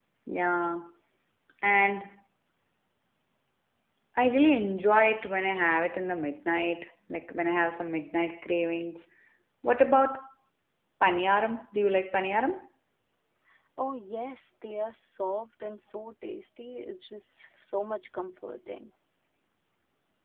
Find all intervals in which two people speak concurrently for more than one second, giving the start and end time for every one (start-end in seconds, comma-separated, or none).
none